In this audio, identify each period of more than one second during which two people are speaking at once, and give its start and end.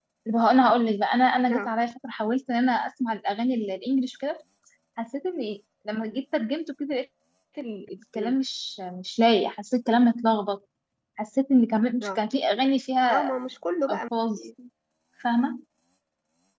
none

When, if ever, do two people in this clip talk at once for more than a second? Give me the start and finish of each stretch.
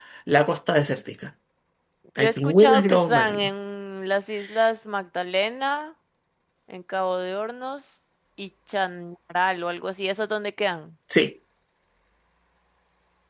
2.2-3.5

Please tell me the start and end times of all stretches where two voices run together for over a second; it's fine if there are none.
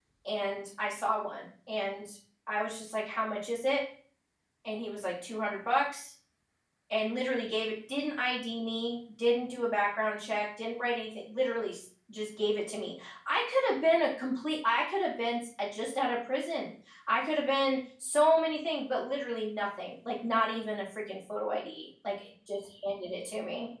none

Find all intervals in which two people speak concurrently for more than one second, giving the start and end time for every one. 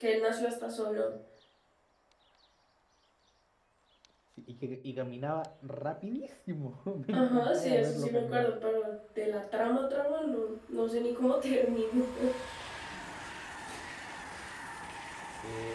7.1-8.5

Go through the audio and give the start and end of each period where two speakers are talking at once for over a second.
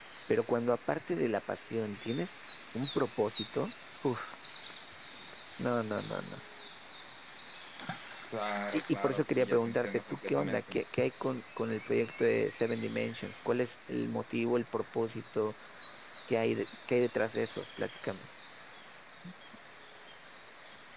8.7-10.8

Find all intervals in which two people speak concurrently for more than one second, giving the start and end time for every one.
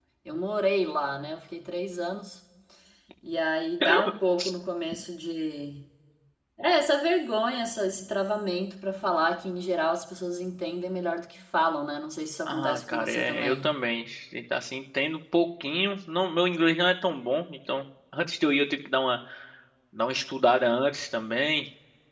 12.5-13.7

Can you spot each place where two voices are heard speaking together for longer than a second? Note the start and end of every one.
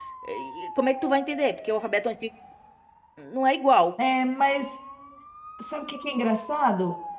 none

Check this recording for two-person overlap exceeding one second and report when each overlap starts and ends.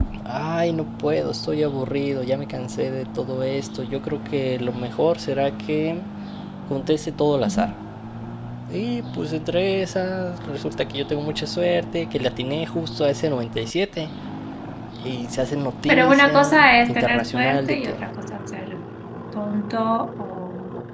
15.9-17.9

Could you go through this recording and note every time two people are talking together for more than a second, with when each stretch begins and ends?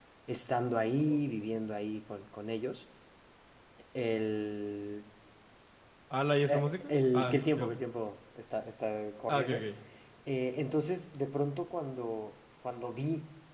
6.5-7.8

